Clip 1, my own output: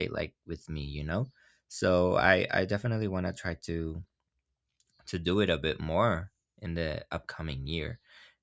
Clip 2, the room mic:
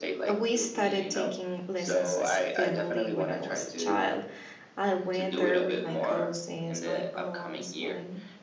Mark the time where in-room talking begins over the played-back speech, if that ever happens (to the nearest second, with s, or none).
0 s